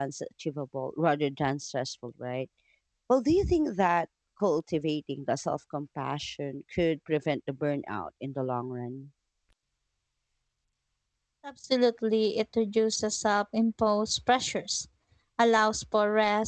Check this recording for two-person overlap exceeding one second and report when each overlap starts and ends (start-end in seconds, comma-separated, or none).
none